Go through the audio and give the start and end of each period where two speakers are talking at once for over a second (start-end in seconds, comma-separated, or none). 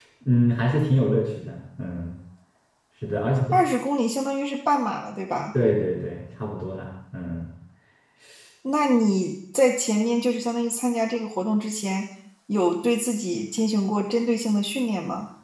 none